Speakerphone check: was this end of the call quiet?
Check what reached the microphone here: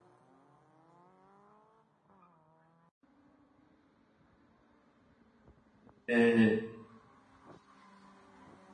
No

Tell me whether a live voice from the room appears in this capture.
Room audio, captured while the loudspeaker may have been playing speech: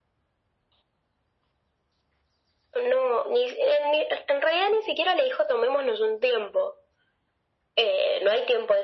No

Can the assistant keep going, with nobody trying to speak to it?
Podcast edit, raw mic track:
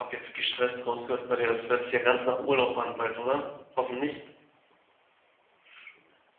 No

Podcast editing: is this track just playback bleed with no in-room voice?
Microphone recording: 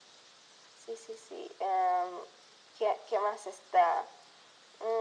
Yes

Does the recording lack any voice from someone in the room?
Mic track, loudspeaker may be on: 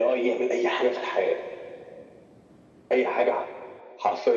Yes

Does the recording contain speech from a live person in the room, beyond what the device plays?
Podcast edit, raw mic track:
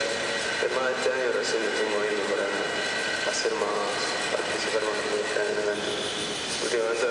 No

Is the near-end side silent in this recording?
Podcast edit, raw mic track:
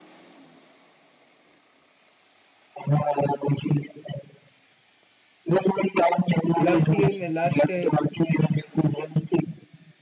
No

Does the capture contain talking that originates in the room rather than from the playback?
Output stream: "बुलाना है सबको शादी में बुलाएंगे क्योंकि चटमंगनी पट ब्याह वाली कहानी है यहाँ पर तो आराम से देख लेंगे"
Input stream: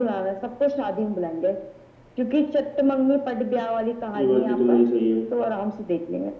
Yes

